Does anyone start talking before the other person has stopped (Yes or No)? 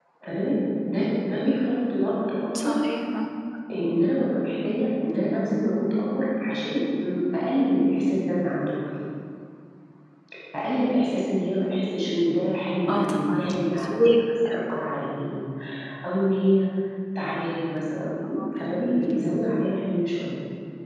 Yes